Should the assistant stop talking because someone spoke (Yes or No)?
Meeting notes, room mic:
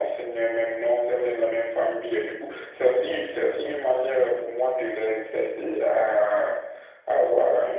No